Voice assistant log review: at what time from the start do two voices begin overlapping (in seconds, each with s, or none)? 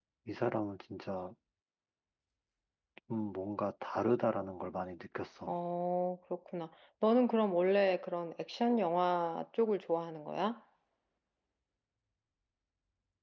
none